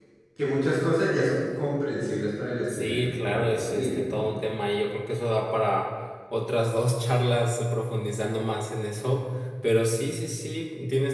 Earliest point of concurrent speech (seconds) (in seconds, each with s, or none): 2.7 s